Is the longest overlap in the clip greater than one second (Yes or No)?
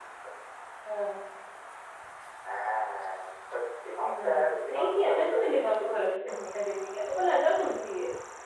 Yes